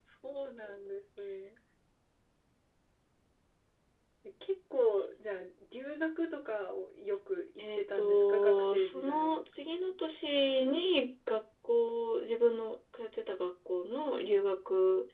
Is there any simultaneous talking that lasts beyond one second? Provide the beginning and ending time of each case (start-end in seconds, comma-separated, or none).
7.6-9.4